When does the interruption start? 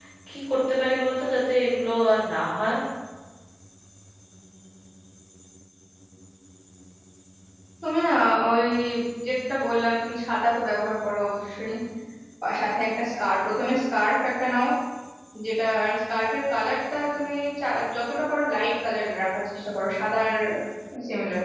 none

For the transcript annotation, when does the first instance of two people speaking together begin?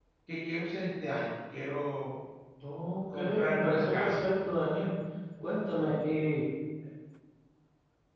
3.1 s

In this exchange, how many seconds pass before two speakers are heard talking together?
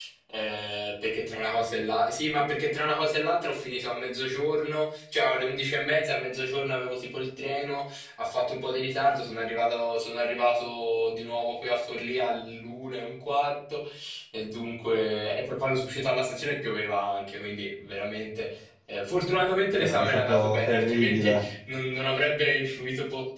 19.7 s

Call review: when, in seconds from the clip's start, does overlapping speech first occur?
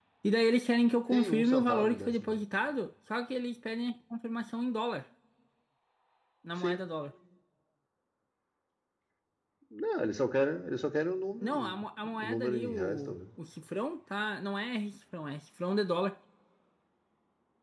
1.1 s

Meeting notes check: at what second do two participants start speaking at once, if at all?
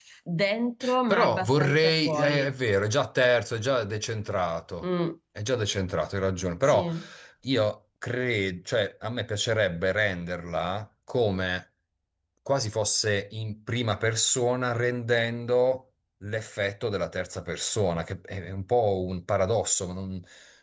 1.1 s

